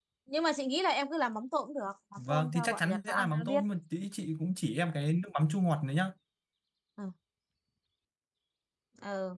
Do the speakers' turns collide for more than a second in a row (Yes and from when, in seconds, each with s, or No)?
Yes, from 2.2 s